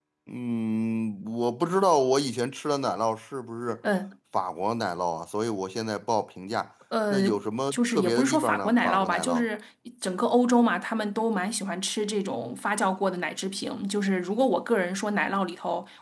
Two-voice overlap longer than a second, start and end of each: 7.7-9.4

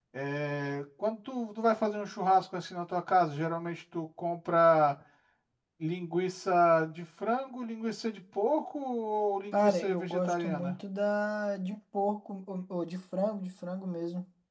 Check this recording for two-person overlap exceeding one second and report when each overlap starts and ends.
9.5-10.8

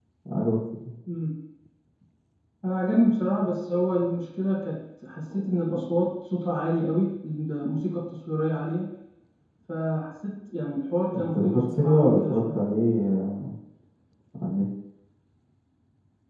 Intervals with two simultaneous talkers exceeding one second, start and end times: 11.2-12.6

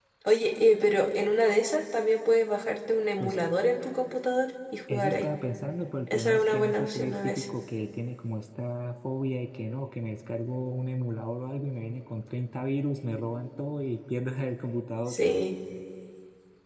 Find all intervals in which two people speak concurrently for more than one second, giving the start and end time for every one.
6.1-7.4

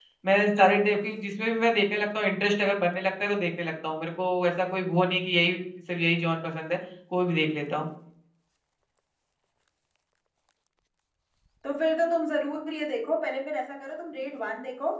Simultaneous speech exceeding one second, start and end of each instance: none

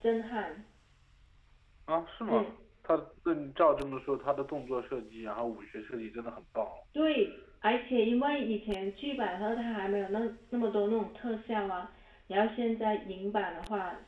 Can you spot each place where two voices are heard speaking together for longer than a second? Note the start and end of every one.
none

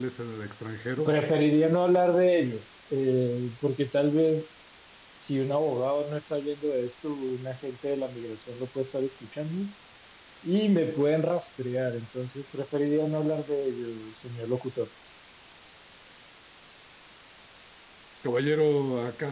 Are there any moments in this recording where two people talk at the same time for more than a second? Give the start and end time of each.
none

